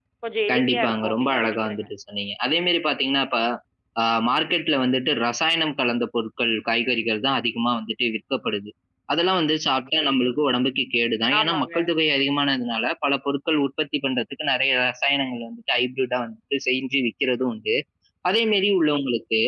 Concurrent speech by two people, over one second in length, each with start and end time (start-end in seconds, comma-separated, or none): 0.5-1.9